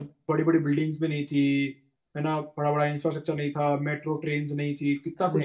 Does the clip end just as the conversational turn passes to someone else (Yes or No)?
Yes